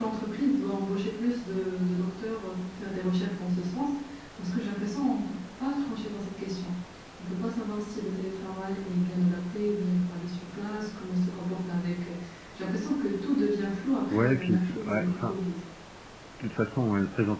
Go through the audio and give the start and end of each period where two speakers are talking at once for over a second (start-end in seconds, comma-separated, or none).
14.1-15.4